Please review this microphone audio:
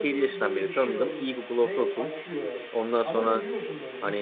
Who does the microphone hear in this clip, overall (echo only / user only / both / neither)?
both